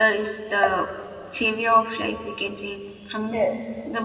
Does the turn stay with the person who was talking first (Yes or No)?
Yes